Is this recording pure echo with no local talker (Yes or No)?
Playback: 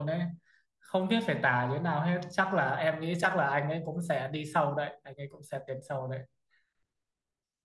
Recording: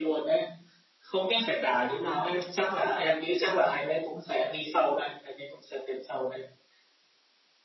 Yes